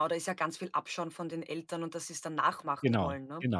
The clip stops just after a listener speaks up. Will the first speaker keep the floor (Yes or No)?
No